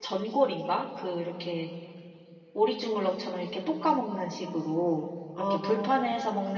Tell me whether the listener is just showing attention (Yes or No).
Yes